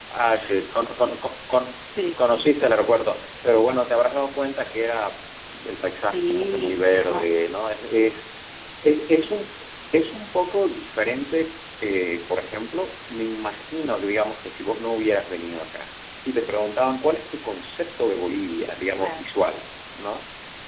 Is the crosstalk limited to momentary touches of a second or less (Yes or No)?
No